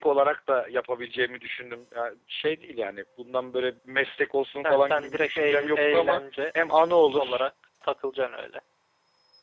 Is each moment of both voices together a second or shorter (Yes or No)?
No